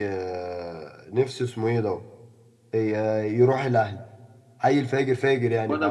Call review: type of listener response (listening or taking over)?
taking over